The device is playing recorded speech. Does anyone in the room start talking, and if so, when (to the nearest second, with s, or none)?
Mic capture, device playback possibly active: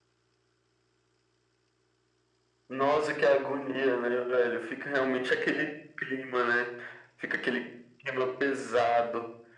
none